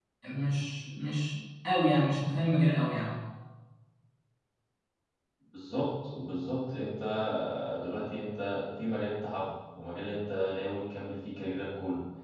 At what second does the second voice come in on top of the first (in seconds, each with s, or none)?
none